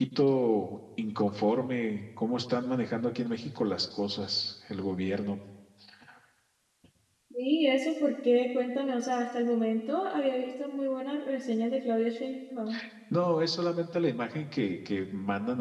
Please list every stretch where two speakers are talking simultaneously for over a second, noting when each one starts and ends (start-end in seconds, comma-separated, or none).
none